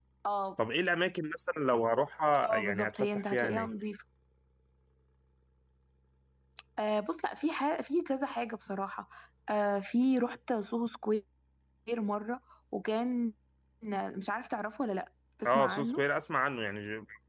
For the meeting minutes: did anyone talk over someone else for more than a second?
Yes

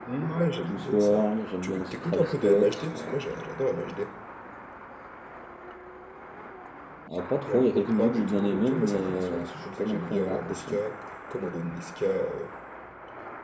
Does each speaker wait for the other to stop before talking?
No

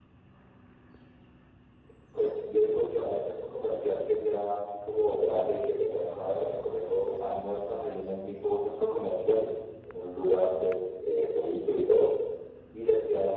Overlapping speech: No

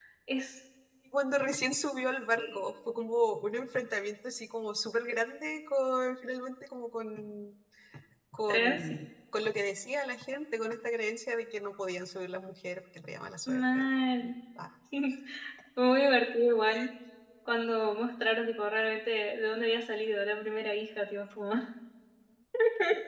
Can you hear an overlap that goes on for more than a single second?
No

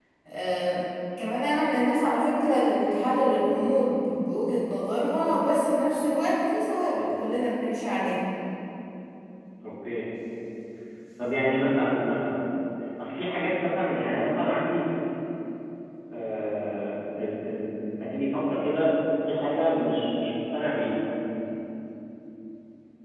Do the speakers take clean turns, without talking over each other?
Yes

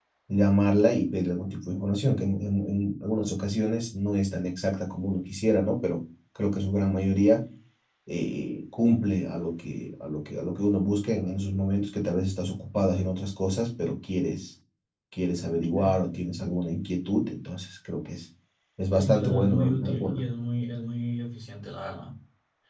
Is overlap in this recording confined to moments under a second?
No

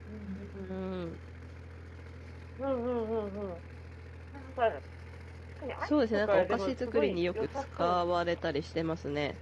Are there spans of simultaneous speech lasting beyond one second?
Yes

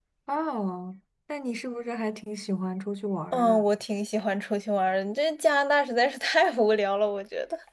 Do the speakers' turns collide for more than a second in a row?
No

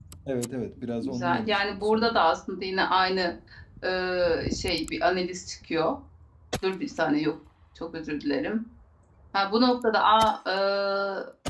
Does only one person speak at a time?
No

